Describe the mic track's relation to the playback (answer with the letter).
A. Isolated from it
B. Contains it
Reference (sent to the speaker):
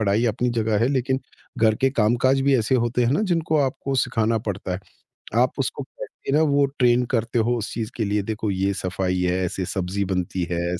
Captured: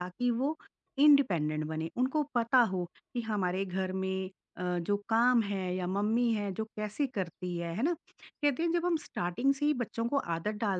A